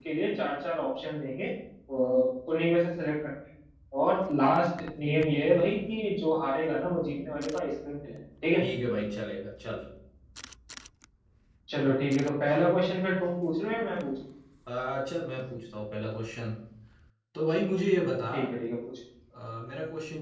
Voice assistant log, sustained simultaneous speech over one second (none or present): none